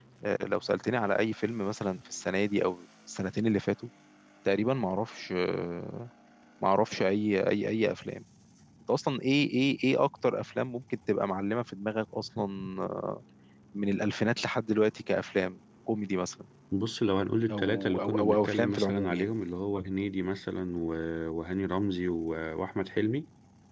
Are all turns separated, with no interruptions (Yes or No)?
No